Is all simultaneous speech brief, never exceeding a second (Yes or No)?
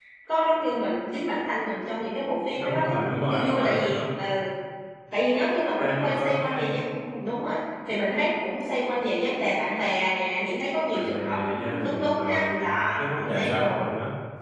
No